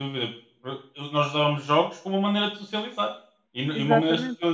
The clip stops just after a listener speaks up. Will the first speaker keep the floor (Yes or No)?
Yes